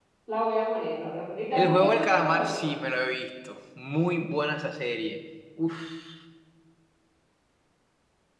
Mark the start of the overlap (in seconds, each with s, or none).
1.5 s